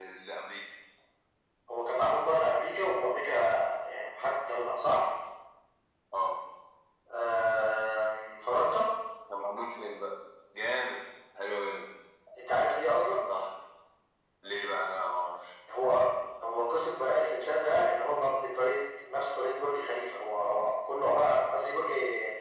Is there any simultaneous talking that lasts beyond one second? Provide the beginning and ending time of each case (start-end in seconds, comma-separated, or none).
none